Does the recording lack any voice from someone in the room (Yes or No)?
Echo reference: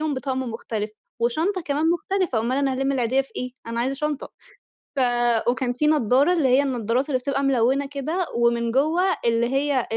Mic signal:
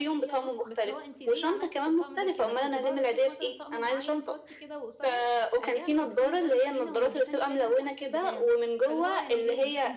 No